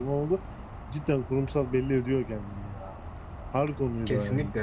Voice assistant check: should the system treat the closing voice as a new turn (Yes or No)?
Yes